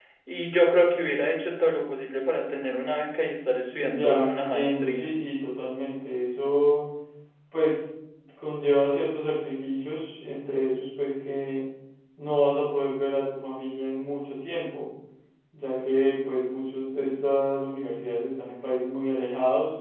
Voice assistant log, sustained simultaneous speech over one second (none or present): present